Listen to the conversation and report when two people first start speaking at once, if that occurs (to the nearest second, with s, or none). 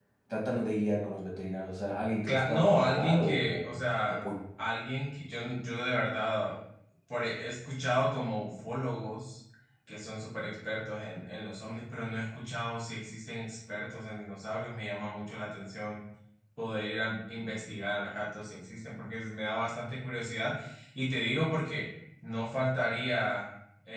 2 s